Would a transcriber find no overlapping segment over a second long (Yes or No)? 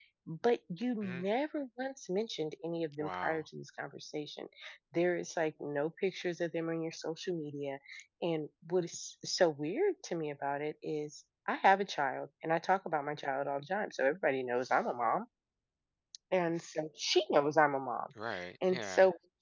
Yes